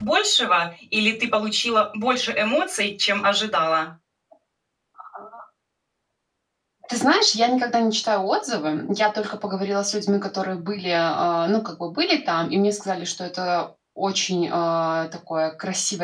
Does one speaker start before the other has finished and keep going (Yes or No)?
No